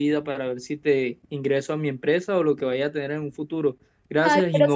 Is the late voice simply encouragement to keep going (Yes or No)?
No